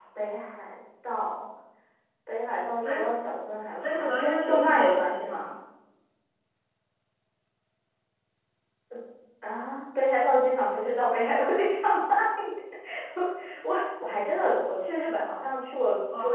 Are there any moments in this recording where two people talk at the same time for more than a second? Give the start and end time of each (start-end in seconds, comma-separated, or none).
3.8-5.5